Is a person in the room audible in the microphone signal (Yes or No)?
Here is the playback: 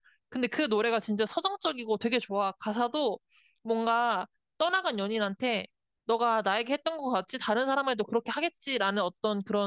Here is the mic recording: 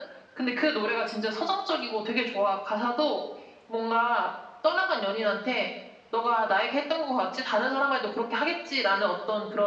No